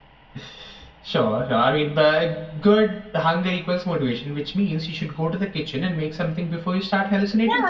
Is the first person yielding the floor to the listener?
Yes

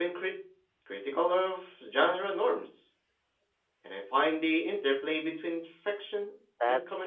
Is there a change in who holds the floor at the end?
Yes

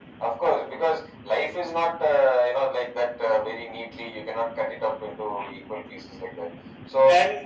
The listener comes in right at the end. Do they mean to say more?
No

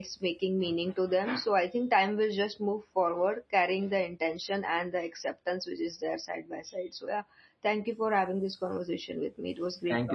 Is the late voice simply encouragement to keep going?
No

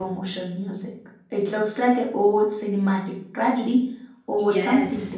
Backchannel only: No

